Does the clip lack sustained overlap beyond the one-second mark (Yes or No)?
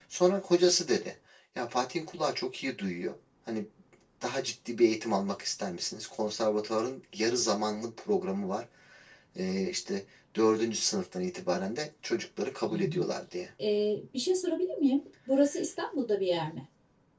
Yes